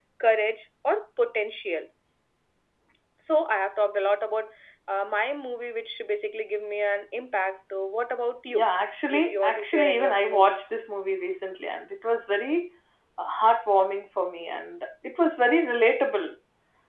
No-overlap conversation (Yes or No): No